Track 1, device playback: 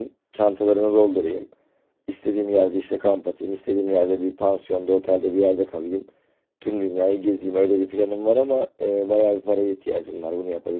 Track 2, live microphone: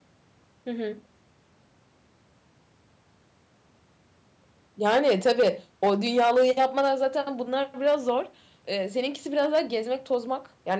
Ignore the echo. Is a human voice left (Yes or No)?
Yes